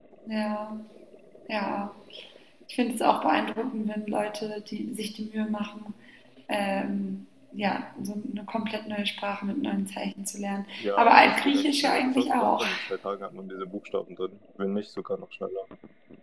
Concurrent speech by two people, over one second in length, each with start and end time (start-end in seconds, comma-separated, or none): 10.8-12.6